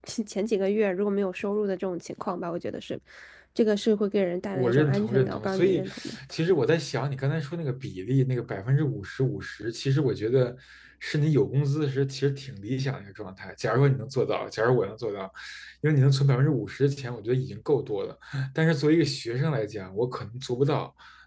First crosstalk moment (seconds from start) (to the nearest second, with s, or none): 5 s